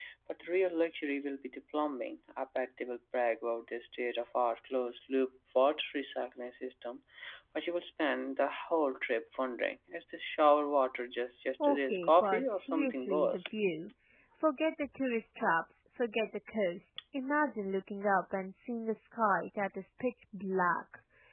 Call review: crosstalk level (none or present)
present